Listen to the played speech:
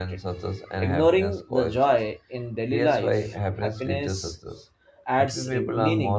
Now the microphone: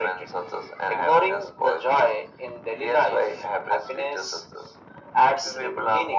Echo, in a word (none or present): present